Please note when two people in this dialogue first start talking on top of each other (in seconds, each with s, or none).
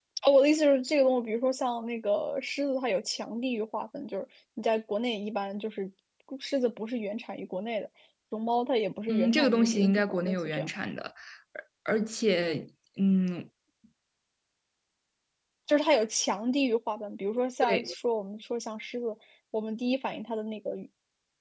9.1 s